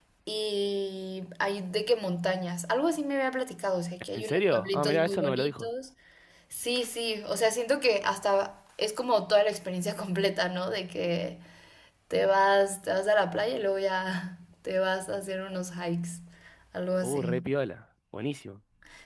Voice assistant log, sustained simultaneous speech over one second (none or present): present